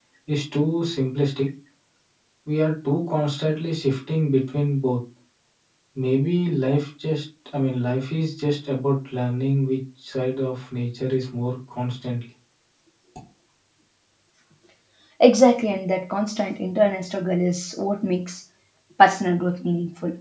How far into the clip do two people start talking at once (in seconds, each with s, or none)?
none